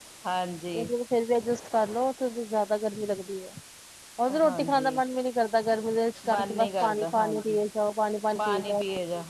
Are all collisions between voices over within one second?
No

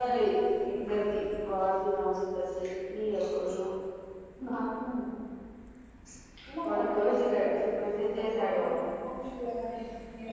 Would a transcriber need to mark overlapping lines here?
Yes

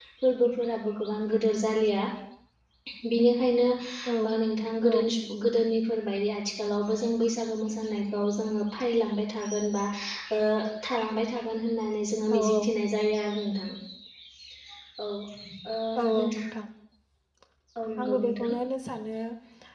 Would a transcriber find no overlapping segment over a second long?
Yes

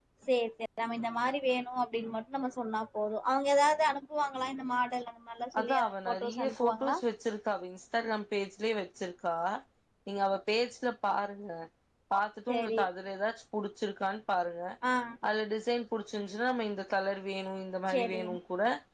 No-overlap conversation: No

